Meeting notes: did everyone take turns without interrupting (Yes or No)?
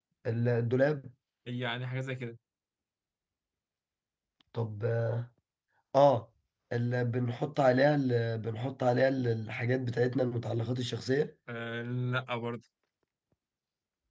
Yes